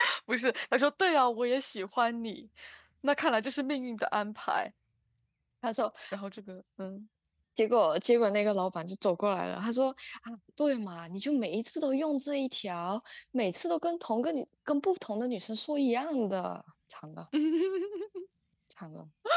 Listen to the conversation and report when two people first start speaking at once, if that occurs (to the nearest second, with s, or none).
none